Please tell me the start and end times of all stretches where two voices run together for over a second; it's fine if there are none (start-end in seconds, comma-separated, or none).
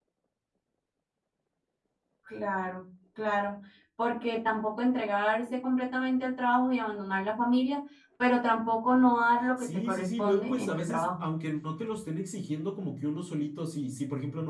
9.6-11.2